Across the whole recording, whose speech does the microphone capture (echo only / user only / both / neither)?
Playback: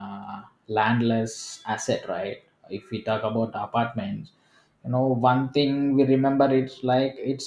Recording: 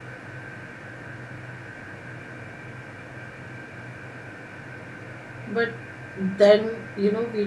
user only